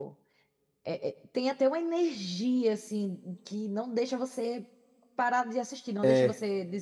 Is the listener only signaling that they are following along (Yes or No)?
Yes